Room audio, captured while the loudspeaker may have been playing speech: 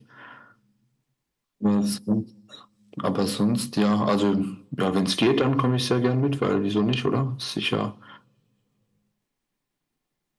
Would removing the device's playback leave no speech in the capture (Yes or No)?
Yes